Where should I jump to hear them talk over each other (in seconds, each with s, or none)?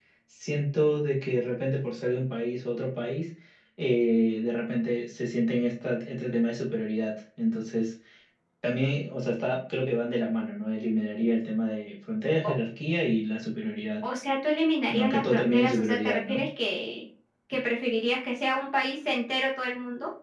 14.9 s